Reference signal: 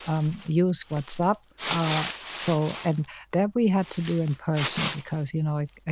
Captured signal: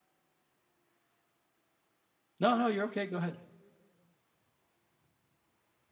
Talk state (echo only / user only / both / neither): user only